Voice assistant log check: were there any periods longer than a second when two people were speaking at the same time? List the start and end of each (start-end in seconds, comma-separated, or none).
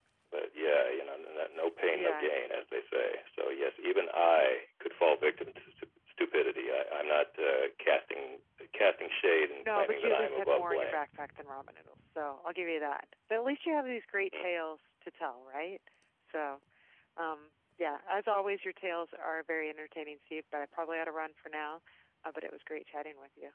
9.6-11.0